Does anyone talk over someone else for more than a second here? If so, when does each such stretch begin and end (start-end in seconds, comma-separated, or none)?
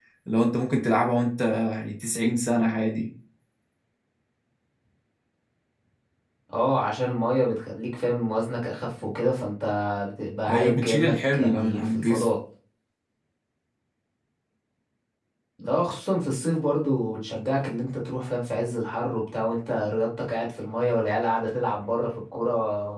10.5-12.3